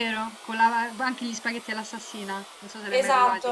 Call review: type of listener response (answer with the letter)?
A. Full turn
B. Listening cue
A